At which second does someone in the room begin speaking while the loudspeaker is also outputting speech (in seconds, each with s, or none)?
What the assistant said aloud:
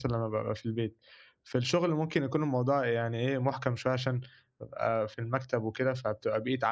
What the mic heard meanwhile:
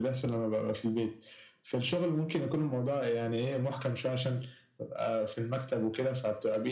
none